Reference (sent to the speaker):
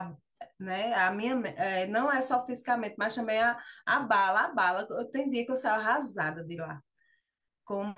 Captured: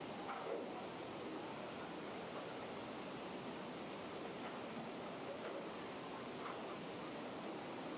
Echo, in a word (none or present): none